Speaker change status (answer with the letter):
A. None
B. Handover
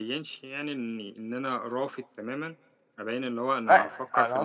B